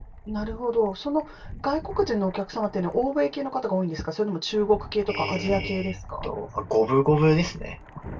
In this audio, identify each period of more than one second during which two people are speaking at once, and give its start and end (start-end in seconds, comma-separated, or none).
5.1-6.3